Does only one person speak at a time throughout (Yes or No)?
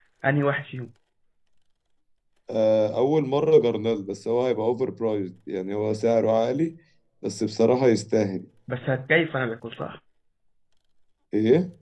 Yes